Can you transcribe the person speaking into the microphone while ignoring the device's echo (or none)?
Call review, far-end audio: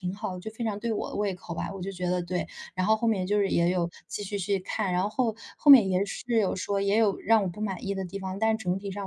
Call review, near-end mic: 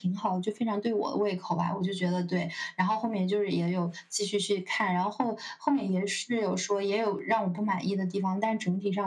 none